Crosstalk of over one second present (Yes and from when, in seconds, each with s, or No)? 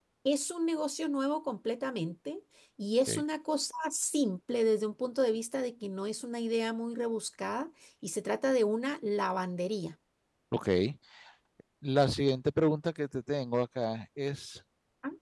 No